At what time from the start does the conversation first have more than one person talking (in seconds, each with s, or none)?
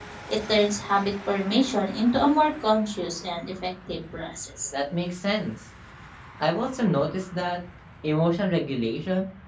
none